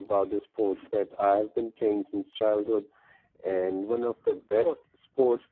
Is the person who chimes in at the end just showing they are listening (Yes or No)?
Yes